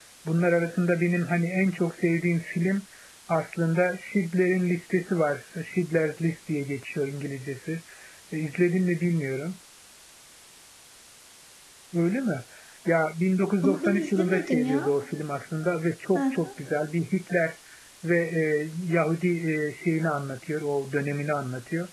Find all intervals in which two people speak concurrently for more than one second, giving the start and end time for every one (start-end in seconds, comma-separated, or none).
13.6-14.9